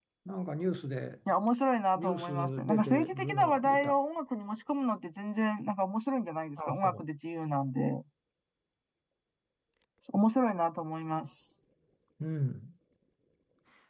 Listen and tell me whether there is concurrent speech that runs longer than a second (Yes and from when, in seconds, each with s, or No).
Yes, from 2.0 s